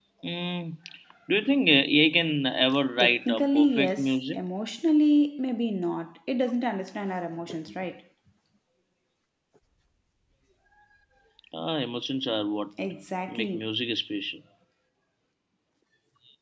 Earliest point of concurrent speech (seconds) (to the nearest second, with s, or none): 3 s